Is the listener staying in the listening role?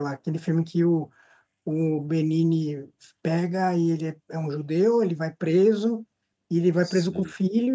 Yes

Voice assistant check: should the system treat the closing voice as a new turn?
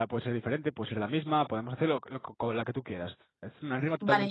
Yes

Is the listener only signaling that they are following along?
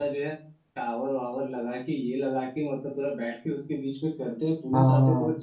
Yes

